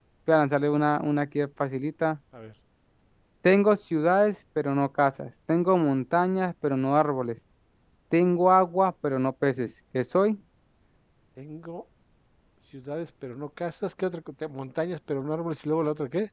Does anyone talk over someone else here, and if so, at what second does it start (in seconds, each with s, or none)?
none